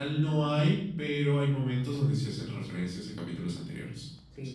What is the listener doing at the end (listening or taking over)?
taking over